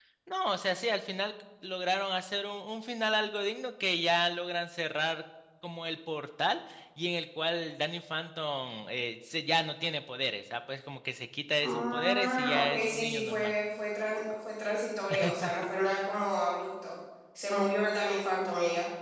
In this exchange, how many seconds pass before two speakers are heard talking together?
11.6 s

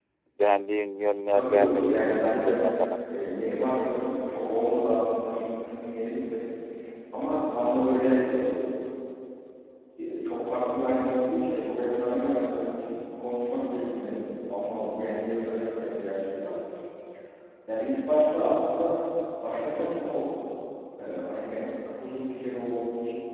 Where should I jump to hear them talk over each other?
1.3 s

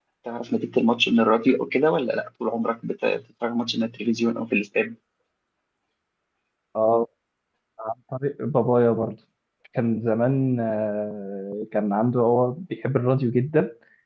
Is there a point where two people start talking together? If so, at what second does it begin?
none

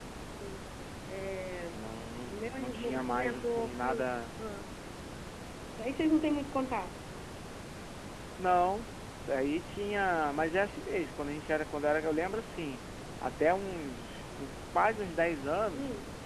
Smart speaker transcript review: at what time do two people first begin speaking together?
2.3 s

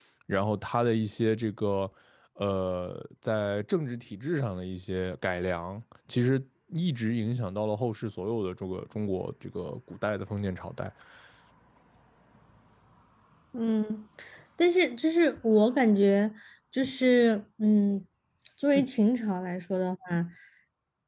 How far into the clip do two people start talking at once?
none

